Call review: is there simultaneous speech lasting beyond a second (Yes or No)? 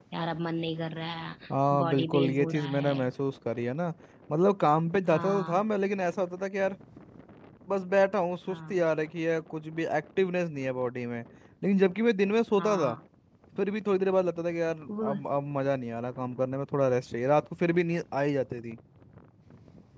Yes